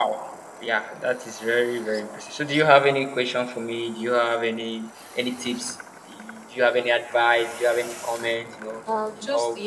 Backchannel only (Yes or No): No